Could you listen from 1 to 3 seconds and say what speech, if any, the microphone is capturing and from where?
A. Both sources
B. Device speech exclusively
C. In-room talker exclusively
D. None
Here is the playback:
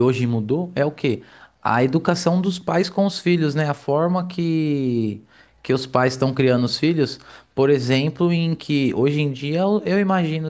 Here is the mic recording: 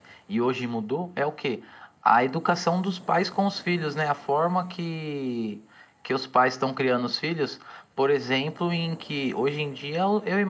B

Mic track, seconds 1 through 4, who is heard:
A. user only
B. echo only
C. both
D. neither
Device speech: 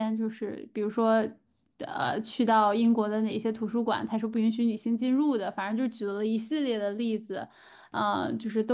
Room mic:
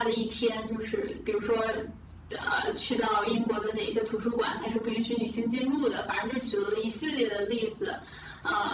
B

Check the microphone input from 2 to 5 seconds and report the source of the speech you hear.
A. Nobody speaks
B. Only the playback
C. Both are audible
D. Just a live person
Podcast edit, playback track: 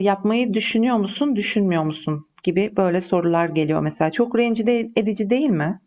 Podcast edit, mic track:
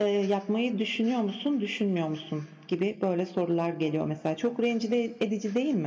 B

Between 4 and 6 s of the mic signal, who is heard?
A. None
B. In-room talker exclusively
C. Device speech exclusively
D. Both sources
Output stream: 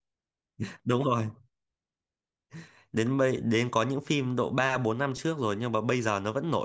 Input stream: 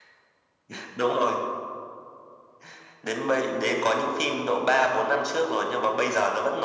C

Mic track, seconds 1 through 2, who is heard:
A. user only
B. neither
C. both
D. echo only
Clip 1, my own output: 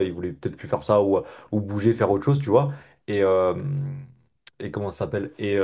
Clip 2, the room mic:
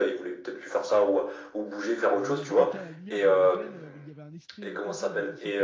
D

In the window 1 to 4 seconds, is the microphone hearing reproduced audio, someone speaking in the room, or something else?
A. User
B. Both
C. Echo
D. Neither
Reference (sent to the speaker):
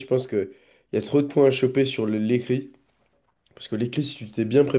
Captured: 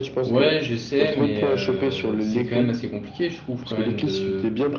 B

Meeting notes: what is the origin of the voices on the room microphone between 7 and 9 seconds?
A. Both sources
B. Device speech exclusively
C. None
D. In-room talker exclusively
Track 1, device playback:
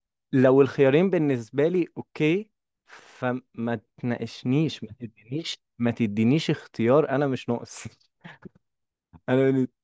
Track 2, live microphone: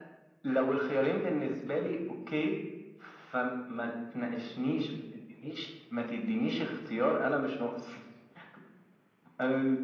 B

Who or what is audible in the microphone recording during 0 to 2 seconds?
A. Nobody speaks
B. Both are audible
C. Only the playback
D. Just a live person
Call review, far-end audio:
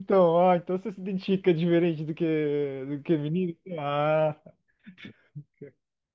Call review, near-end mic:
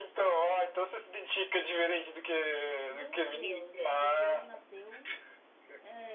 C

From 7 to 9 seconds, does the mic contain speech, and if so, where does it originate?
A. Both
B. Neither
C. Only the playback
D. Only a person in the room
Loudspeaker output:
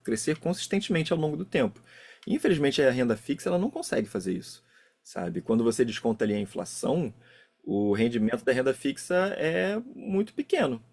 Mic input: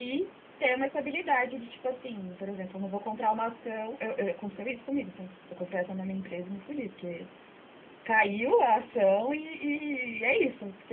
D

